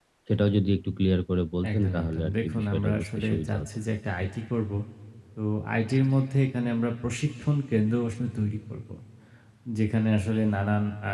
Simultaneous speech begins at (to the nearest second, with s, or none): 2 s